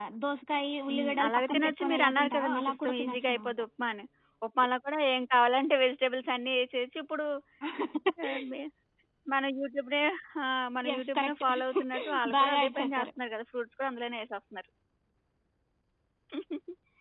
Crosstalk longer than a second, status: present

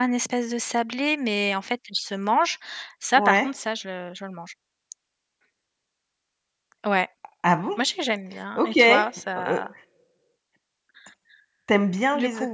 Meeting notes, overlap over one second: none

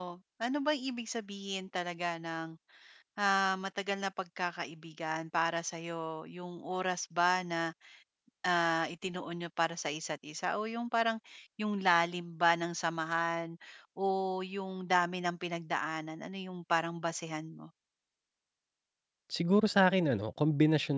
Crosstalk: none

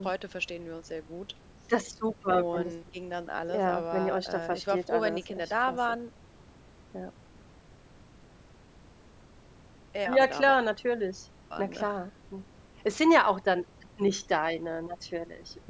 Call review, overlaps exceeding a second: present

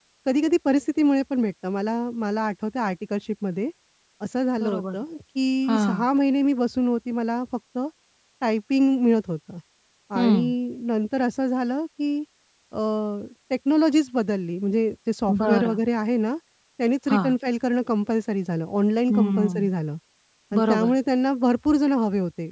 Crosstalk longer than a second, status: none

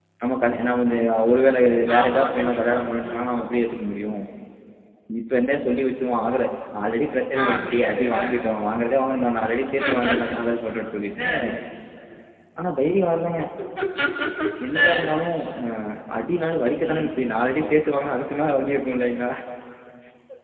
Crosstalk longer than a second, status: present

